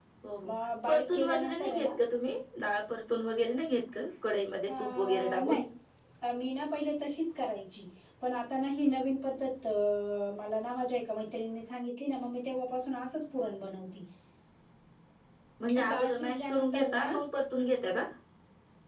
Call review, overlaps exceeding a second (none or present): present